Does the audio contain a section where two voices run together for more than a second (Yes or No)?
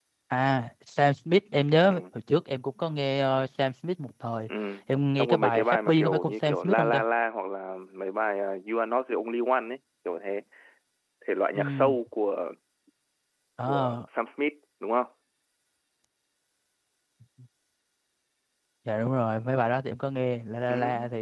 Yes